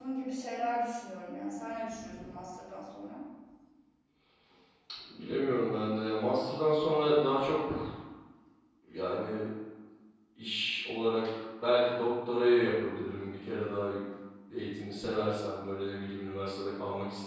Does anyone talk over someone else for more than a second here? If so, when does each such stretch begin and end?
none

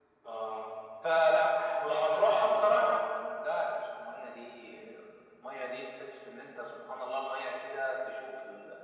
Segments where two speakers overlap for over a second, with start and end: 1.6-3.0

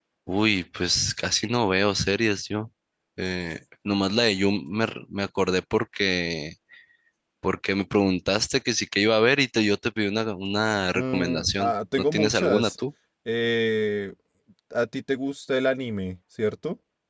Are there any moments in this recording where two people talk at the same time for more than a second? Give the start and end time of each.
10.9-12.7

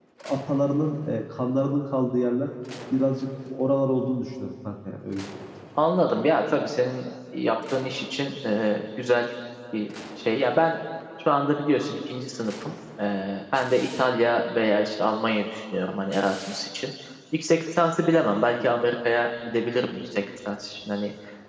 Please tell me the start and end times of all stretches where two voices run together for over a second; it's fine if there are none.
none

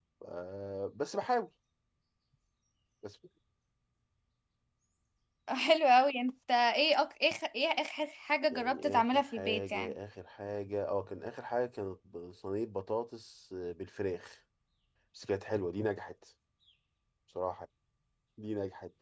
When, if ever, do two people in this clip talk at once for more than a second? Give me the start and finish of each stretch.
8.5-9.9

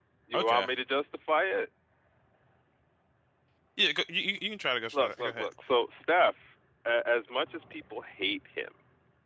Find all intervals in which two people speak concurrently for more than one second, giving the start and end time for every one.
none

